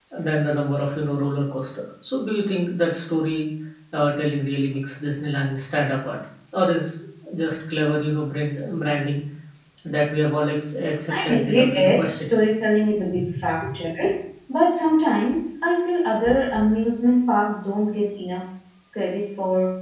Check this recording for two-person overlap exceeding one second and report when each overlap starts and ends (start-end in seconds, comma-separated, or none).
11.1-12.4